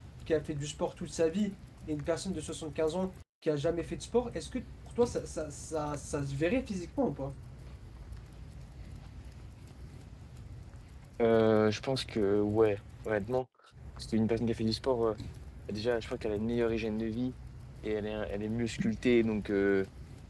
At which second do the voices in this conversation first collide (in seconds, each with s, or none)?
none